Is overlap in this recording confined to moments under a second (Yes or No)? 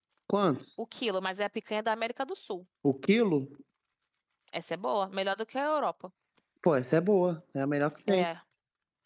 Yes